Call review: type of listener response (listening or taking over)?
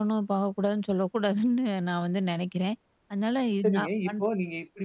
taking over